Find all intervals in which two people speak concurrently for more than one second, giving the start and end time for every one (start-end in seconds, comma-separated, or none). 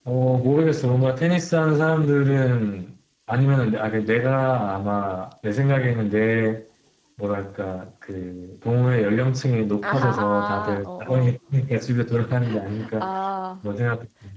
9.8-11.3